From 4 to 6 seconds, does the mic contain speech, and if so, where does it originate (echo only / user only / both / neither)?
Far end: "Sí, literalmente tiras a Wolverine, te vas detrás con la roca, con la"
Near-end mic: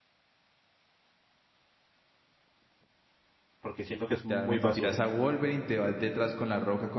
both